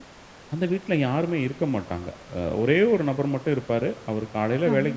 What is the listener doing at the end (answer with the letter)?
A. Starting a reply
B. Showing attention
B